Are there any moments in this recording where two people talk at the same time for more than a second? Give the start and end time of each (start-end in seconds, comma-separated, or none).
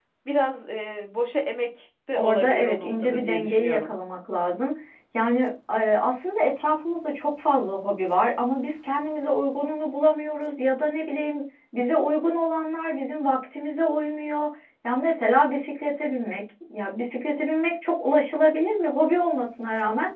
2.1-4.0